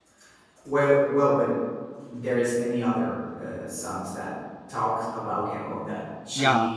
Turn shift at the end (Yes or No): Yes